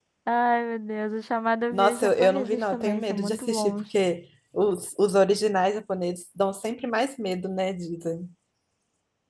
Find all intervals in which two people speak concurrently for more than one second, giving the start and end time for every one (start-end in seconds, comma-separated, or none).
1.7-3.8